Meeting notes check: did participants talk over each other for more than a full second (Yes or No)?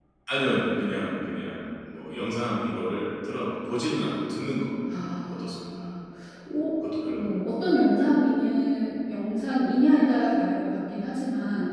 No